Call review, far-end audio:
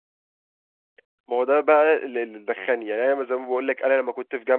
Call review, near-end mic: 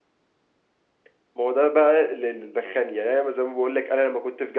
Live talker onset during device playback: none

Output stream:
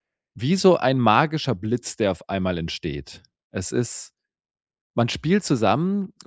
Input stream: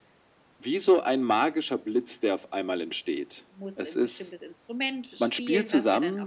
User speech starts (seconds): 3.6 s

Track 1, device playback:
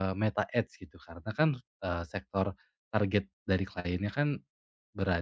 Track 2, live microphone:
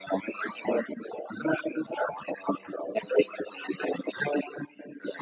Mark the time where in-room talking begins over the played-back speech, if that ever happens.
none

